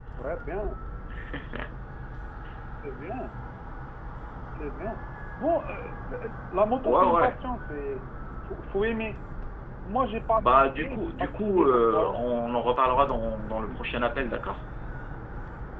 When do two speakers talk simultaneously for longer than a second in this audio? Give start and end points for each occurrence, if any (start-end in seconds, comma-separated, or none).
10.4-12.1